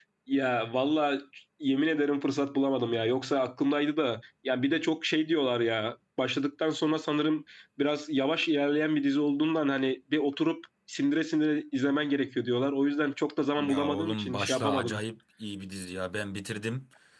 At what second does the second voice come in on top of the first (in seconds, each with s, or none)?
13.6 s